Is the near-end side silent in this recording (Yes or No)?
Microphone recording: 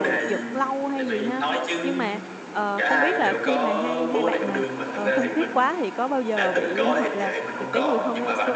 No